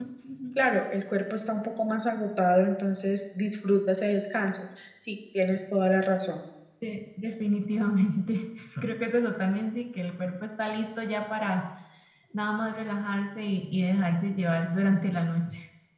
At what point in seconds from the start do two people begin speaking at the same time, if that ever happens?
none

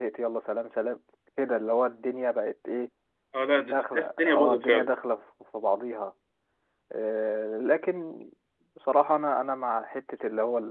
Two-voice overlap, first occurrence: 3.6 s

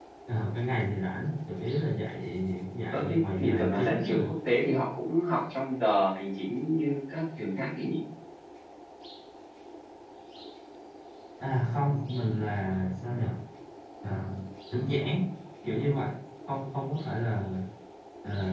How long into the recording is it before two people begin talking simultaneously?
2.9 s

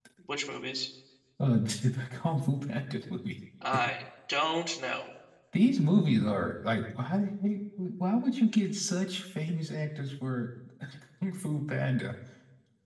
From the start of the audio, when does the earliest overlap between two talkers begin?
none

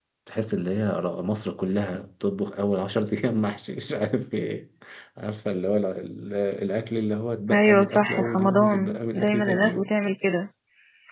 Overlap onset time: 7.5 s

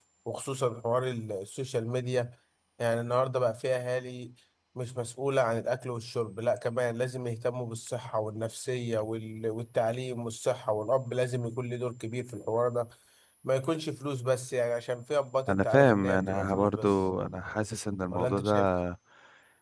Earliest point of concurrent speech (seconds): 15.5 s

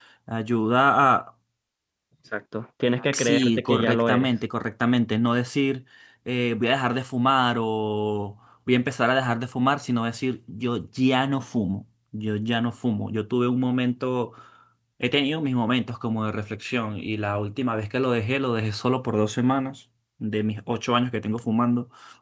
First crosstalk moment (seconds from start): 3.1 s

